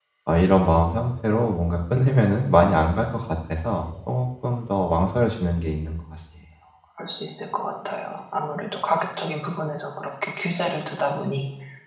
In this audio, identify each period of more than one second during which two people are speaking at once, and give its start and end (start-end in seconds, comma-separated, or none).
none